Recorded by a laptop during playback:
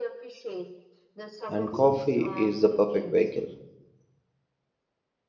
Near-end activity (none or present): present